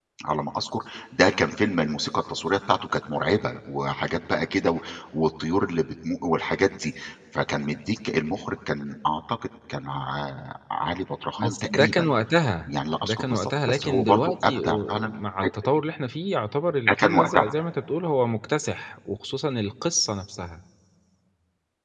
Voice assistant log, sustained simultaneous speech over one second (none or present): present